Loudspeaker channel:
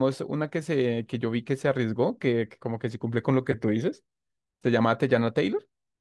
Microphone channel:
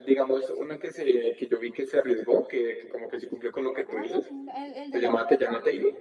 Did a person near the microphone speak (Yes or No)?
Yes